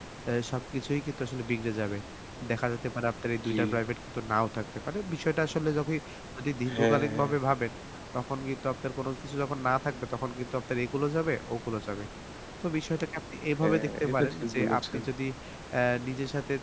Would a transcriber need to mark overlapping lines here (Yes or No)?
Yes